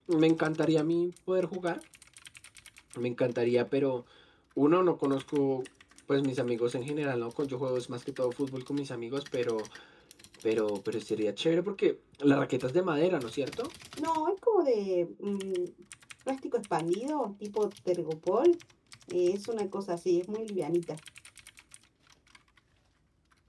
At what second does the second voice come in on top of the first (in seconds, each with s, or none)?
none